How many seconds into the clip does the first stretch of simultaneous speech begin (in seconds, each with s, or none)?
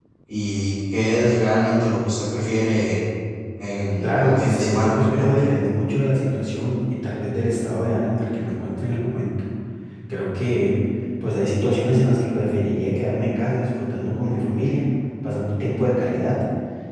4.0 s